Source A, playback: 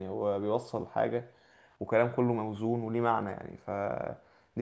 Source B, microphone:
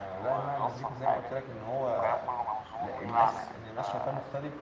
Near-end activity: present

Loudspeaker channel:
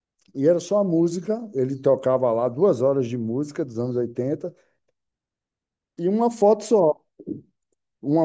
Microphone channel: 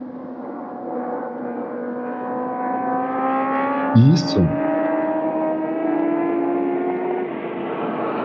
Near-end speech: present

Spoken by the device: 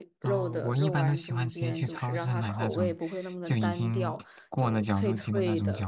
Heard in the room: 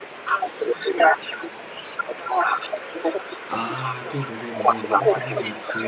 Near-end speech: present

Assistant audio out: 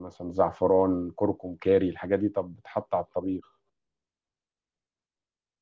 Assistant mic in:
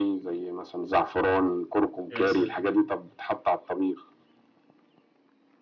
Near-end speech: present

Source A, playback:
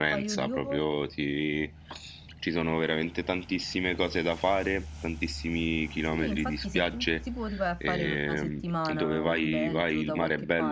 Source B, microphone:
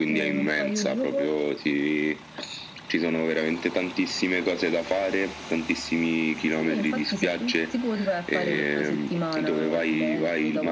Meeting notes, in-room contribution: none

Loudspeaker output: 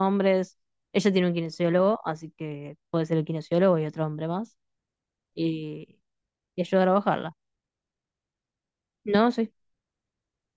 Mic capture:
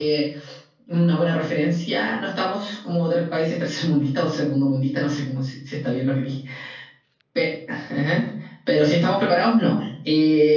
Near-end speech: present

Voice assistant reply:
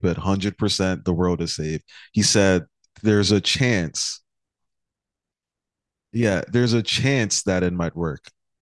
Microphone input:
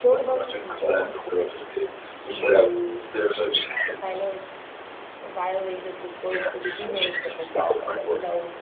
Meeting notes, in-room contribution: present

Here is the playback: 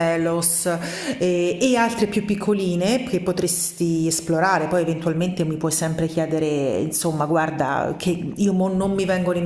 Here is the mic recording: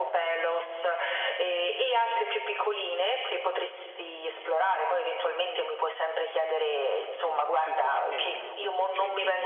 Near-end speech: present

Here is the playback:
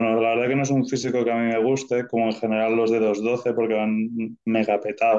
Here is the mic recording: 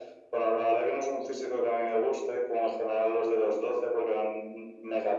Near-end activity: none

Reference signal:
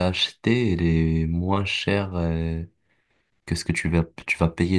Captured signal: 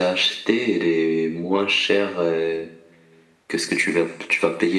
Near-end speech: none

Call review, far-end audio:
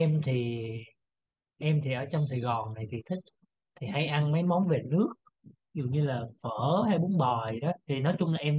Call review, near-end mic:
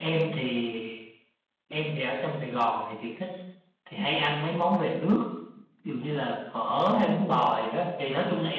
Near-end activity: none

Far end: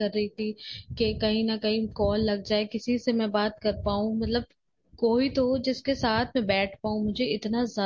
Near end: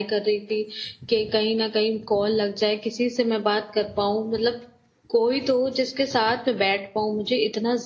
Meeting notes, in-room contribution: none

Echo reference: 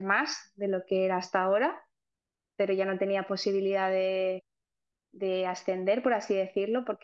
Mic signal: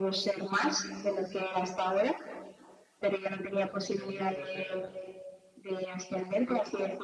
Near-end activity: present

